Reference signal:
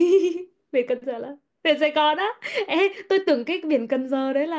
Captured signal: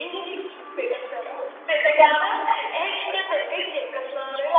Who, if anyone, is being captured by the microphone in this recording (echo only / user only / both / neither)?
echo only